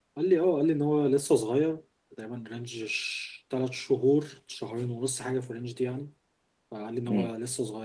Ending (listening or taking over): listening